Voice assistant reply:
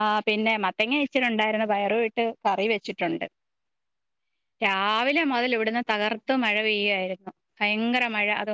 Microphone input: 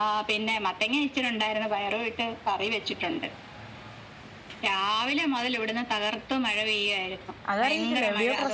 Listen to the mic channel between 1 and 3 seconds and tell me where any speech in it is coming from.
echo only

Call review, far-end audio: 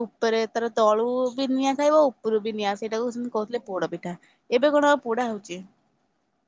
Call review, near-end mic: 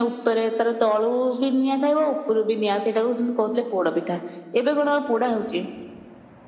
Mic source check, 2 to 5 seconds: echo only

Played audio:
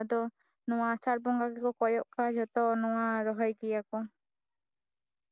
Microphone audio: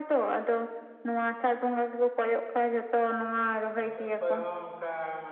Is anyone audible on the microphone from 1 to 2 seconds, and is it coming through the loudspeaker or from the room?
echo only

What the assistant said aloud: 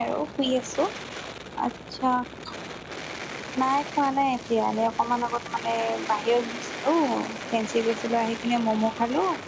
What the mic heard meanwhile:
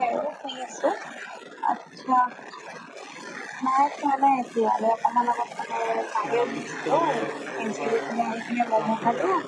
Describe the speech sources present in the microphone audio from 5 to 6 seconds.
echo only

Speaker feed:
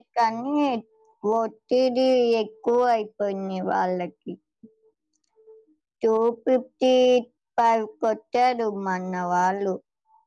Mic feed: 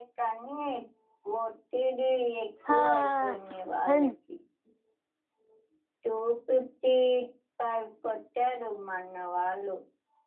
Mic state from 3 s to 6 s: both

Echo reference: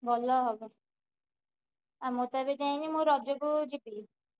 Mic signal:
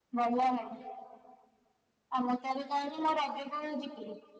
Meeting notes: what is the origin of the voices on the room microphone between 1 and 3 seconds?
echo only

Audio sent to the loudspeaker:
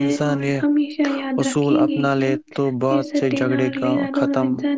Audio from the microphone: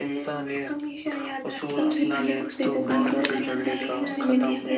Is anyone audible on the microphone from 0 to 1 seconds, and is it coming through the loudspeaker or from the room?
echo only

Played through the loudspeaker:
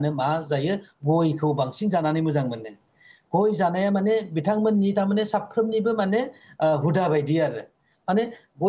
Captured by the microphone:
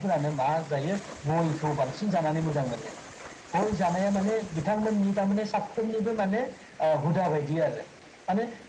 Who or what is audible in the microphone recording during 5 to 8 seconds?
echo only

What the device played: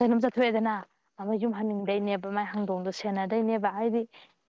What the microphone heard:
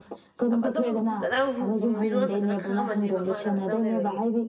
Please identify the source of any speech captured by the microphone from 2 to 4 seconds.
both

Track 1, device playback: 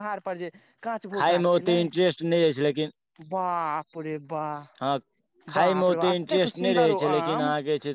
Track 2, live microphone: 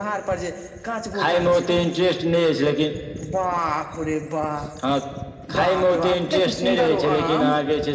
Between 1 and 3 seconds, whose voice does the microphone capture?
echo only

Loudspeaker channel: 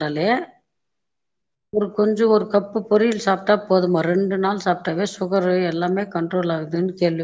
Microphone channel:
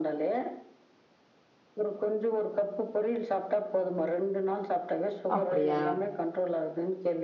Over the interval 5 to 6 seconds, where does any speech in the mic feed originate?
both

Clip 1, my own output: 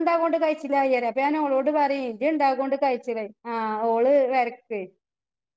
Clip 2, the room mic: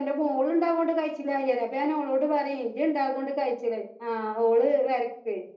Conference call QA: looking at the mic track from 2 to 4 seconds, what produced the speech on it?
echo only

